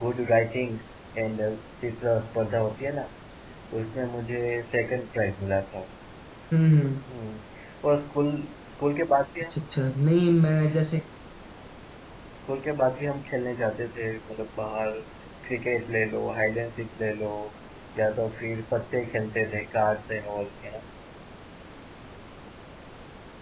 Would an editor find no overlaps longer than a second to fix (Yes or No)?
Yes